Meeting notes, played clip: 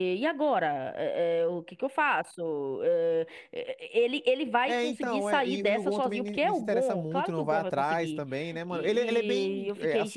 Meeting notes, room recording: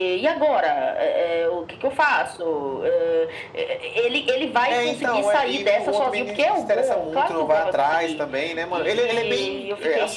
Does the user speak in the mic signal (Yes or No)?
No